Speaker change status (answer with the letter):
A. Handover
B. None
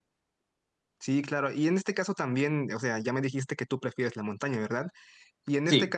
B